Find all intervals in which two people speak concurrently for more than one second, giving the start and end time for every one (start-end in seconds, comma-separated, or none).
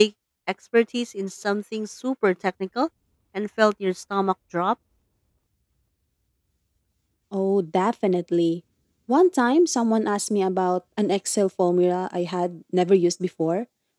none